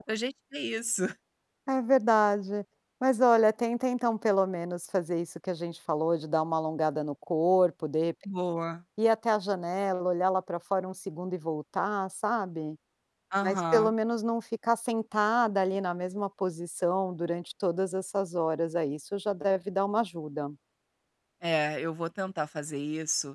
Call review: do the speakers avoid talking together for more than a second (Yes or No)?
Yes